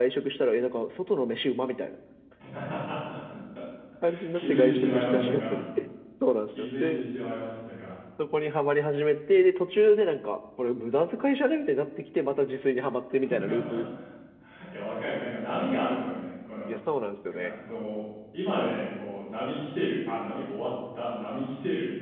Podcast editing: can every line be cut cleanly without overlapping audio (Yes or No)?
No